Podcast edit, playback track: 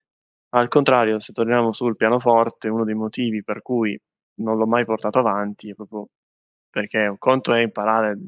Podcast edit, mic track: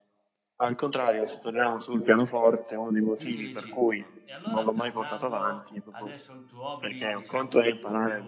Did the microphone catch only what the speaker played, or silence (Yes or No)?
No